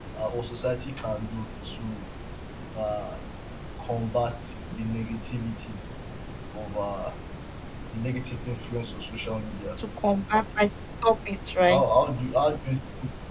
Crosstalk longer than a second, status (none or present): none